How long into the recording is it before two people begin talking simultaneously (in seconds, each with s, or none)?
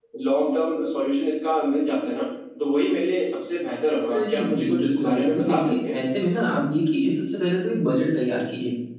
4.1 s